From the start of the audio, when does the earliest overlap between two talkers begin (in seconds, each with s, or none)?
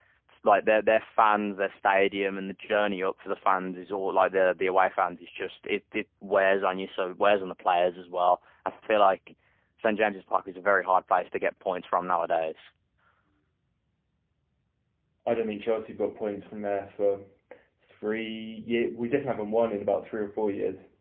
none